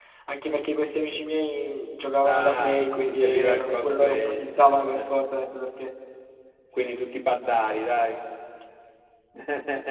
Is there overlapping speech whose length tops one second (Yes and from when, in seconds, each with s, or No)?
Yes, from 2.2 s